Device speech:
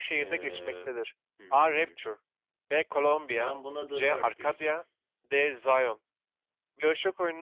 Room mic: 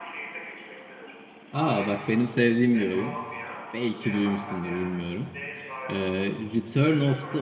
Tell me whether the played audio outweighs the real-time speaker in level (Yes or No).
No